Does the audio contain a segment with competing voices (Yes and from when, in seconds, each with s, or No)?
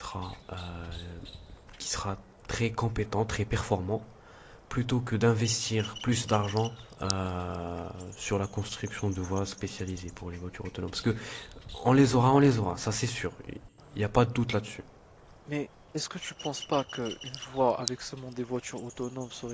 No